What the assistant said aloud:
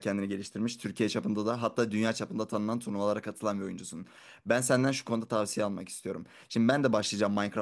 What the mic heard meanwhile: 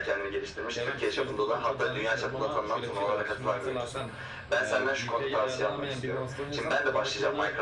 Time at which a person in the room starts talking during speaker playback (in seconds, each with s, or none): 0.8 s